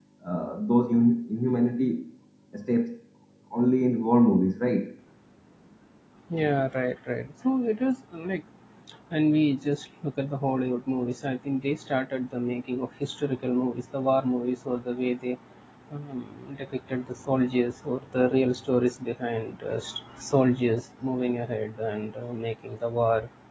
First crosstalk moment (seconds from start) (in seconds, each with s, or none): none